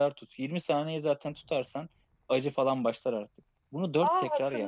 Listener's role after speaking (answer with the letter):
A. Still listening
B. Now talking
B